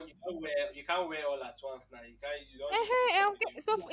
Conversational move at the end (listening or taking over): taking over